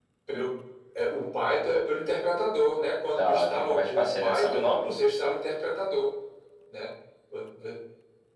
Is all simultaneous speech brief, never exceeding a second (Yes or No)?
No